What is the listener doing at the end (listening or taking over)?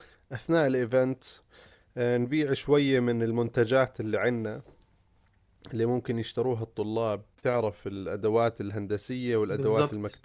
listening